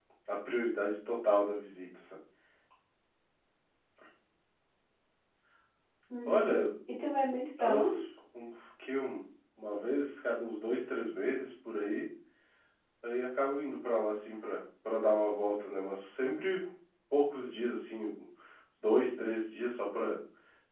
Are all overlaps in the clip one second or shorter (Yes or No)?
Yes